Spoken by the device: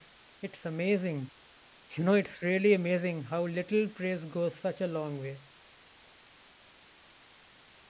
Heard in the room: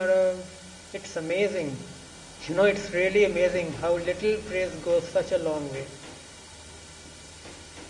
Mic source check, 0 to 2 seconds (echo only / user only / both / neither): echo only